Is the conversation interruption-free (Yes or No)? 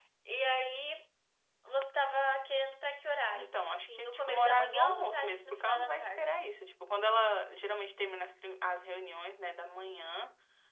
No